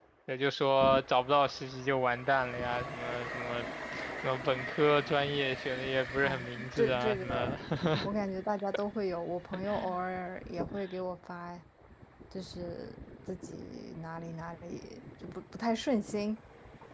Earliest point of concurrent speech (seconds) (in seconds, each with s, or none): 6.2 s